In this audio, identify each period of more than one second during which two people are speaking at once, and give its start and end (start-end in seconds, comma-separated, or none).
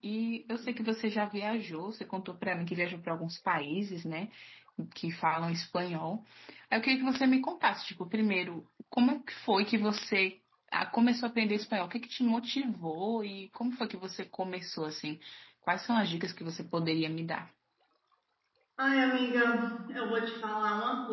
none